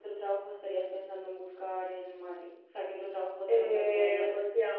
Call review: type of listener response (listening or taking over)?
taking over